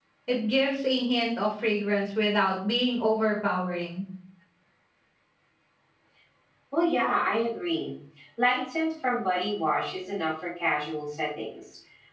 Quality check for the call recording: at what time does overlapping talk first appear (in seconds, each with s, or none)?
none